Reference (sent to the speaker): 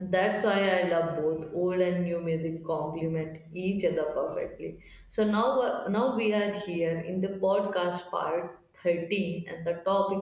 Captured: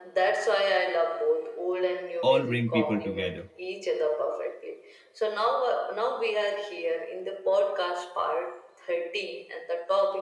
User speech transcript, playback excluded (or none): all bring people together.